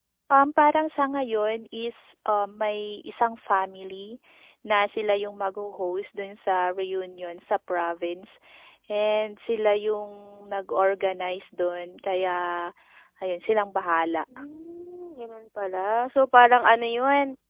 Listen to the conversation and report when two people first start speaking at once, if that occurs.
none

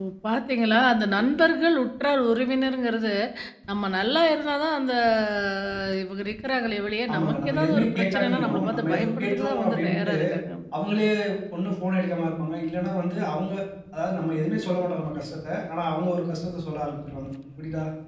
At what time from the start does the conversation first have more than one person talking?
7.1 s

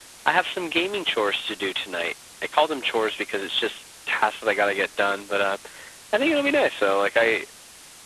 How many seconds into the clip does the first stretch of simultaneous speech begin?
none

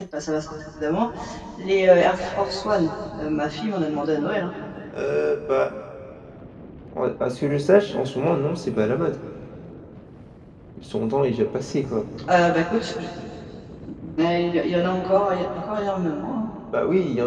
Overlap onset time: none

